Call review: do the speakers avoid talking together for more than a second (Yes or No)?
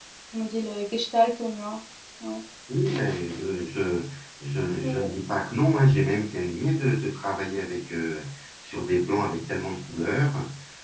Yes